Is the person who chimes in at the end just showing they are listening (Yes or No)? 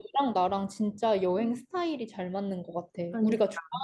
Yes